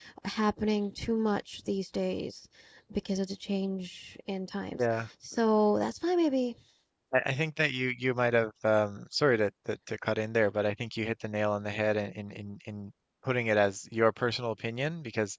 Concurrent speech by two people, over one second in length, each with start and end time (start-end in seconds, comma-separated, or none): none